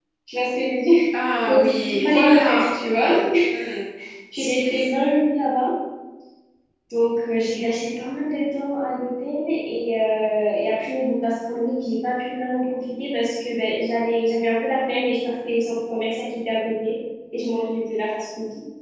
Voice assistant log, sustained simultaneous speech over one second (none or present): present